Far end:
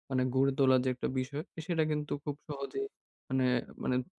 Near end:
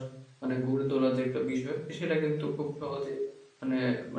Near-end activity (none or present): none